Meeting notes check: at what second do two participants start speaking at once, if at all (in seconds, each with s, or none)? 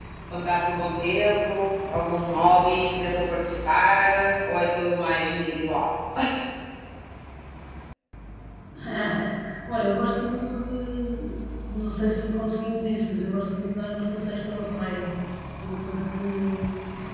none